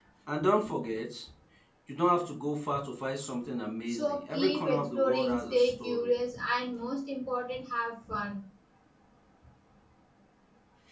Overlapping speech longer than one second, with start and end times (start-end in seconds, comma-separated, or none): 3.9-6.1